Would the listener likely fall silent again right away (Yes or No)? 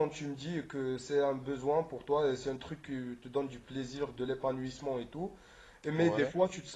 Yes